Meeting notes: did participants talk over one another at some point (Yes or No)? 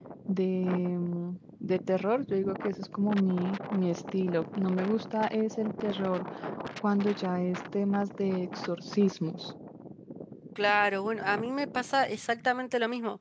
No